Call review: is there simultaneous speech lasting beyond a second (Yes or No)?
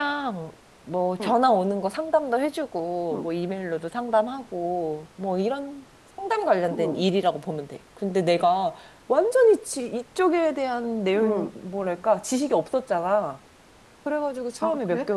No